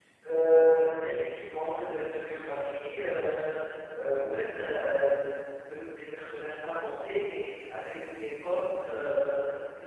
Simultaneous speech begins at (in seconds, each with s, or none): none